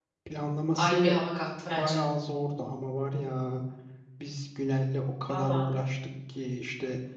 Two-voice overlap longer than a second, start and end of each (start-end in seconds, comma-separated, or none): none